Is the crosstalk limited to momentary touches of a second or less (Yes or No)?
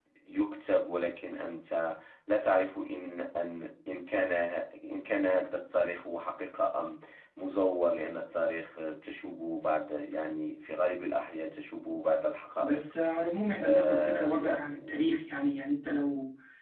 No